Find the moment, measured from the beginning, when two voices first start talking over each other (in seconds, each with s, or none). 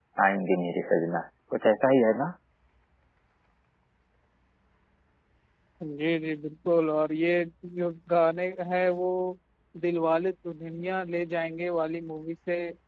none